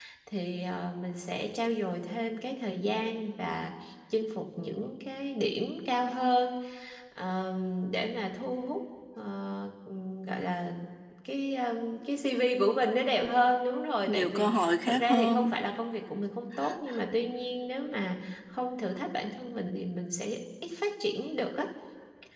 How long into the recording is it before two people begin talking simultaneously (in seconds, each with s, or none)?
14.1 s